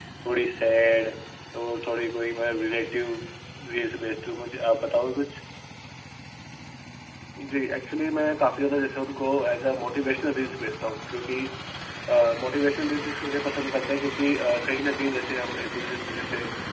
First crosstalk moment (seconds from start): none

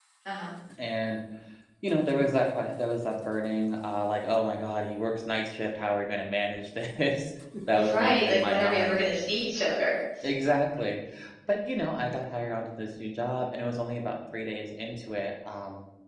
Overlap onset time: 7.7 s

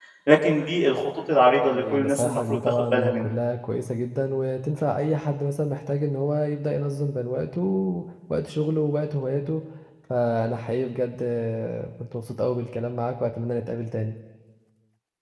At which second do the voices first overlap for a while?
1.6 s

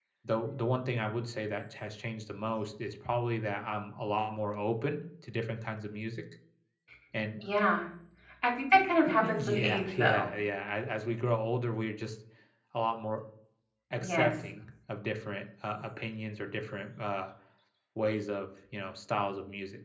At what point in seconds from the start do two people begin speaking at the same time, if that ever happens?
9.1 s

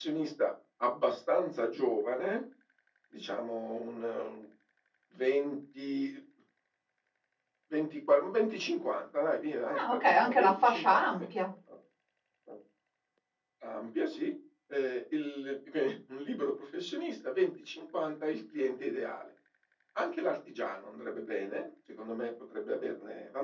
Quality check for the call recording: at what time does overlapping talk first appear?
9.7 s

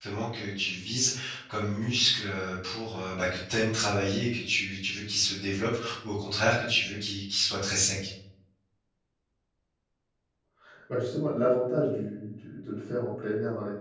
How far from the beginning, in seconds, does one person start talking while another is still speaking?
none

